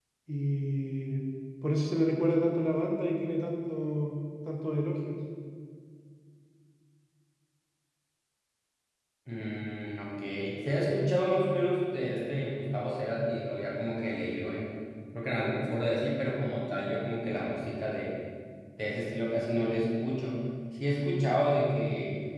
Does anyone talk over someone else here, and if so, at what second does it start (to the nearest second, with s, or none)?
none